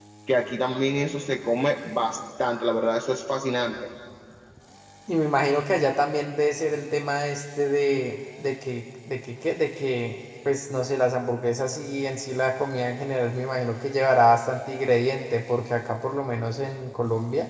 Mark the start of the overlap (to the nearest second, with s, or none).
none